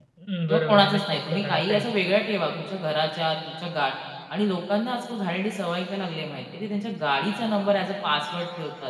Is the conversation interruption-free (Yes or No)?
No